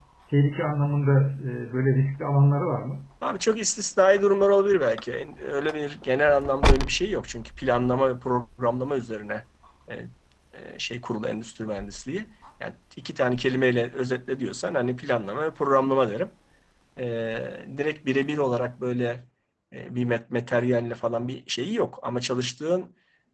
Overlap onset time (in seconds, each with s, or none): none